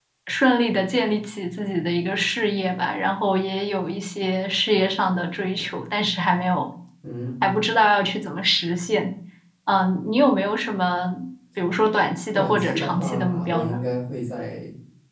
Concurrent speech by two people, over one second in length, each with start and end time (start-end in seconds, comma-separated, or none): 12.3-13.8